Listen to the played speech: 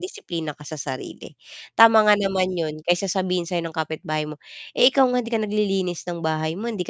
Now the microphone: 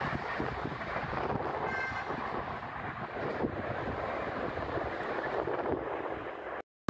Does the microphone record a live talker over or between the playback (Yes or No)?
No